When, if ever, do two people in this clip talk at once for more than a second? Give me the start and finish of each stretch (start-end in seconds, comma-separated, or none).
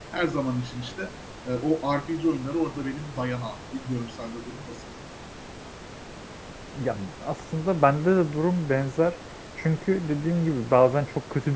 none